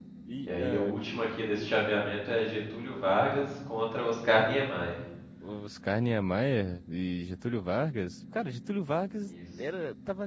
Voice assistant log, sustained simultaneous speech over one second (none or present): none